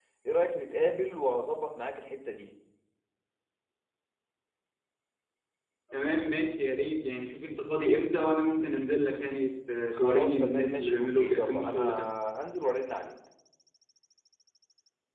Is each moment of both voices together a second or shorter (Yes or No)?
No